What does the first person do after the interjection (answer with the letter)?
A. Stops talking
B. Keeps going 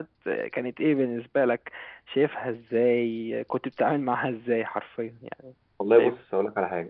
A